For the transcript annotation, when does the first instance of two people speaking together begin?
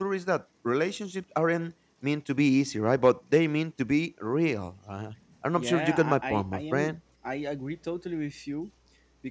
5.6 s

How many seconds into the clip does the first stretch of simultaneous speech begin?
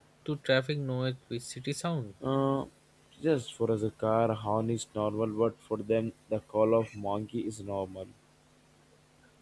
none

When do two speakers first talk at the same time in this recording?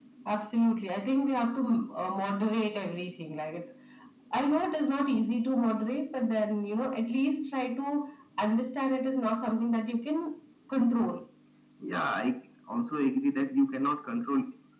none

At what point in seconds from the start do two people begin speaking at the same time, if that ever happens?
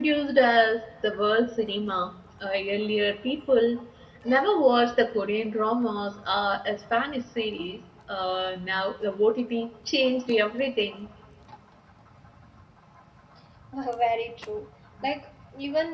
none

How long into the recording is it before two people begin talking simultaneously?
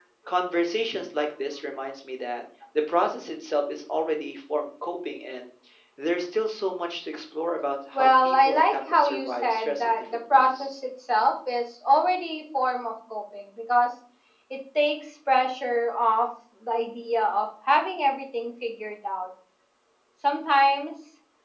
7.9 s

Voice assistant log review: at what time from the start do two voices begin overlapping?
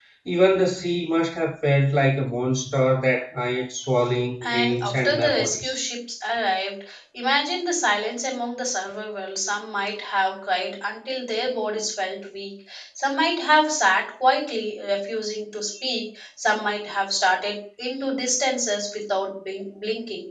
4.4 s

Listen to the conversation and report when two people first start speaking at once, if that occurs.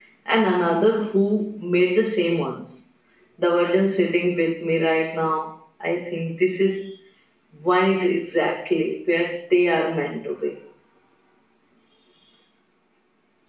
none

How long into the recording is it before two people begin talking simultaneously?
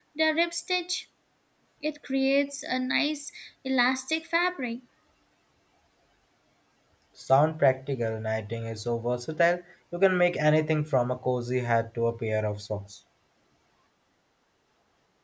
none

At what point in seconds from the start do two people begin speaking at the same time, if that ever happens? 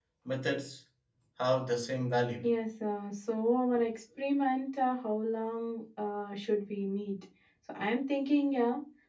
none

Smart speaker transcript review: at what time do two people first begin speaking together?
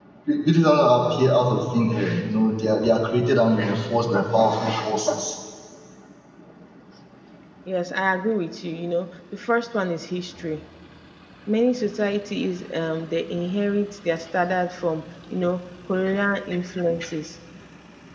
none

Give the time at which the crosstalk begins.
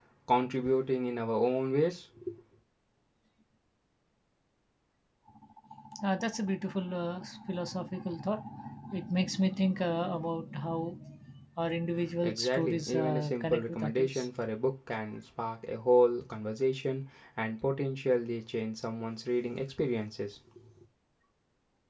12.2 s

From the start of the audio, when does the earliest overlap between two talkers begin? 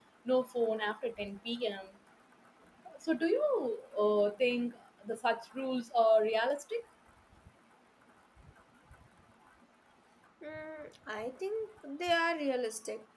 none

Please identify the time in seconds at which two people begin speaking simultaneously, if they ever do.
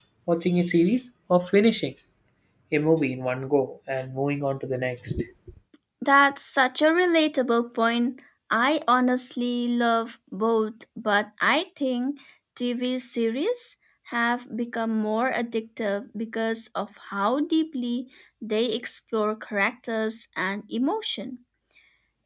none

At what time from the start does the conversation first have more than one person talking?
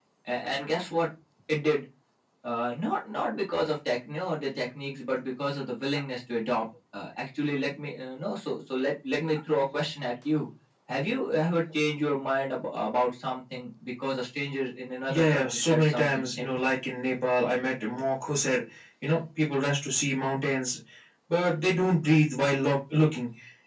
15.1 s

